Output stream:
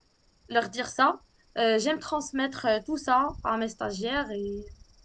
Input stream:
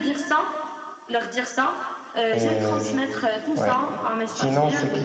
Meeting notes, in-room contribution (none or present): present